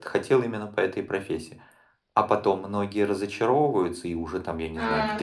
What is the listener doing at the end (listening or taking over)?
taking over